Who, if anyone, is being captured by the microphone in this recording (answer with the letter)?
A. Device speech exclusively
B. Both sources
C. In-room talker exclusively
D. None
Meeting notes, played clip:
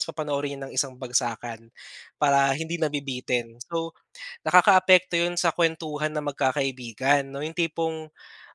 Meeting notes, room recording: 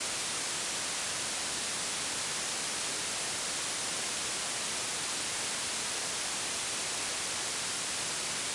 D